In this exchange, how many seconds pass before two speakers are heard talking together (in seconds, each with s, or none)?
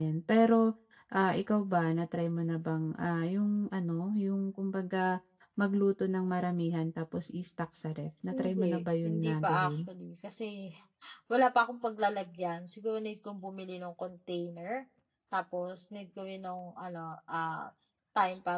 8.3 s